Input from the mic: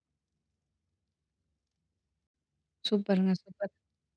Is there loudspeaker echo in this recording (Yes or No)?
No